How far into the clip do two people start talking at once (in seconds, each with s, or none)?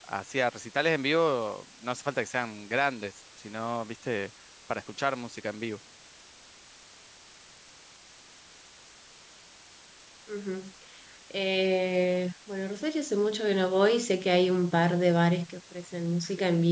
none